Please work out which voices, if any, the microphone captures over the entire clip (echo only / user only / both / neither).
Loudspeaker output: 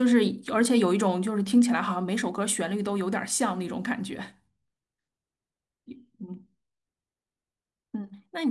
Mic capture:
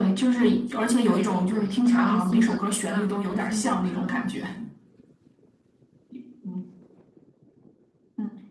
both